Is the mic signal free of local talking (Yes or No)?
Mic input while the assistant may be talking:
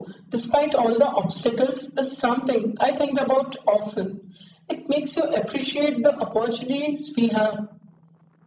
Yes